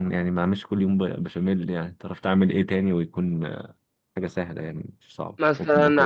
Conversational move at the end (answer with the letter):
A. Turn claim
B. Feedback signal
A